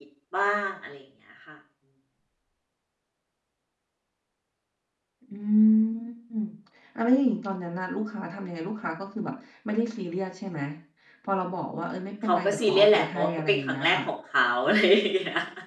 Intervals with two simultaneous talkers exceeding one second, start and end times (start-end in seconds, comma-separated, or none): 12.2-14.0